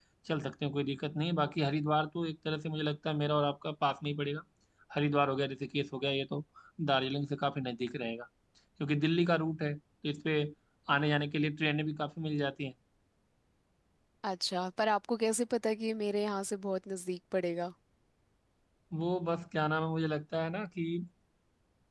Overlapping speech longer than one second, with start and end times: none

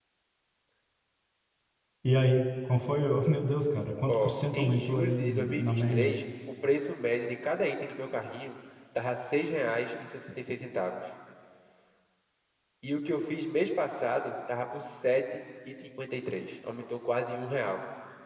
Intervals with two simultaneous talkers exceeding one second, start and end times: 4.1-6.2

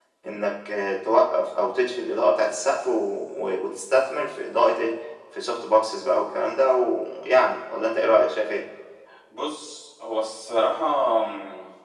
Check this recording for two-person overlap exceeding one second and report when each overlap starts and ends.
none

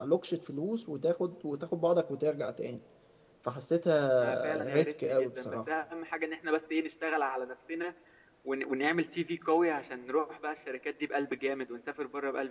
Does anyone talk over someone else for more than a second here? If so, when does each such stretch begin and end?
4.2-5.6

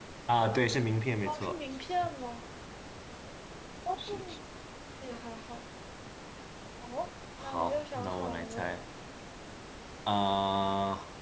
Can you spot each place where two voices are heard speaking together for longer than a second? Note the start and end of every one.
7.4-8.7

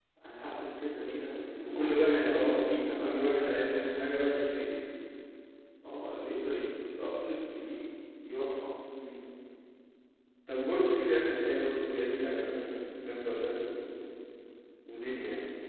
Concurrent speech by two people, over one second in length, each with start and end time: 1.6-3.5

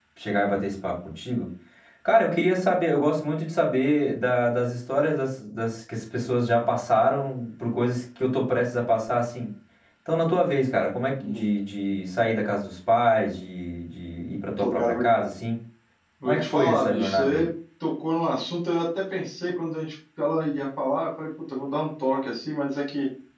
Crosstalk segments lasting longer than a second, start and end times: 16.2-17.5

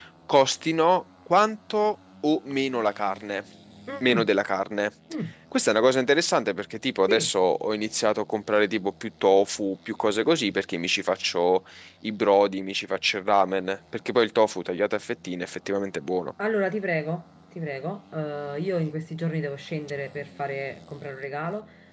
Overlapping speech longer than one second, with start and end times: none

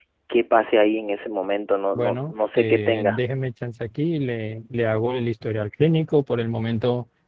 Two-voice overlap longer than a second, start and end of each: 2.0-3.2

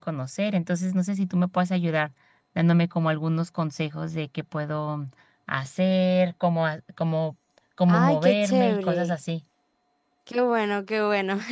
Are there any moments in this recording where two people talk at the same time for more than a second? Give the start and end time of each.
7.9-9.1

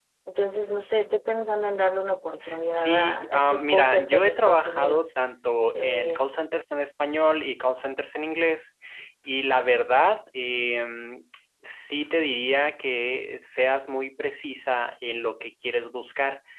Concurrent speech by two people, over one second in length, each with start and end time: 2.7-5.1

